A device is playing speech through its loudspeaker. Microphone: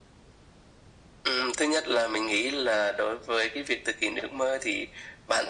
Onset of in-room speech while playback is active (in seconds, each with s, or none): none